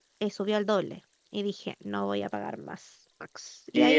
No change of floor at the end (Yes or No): No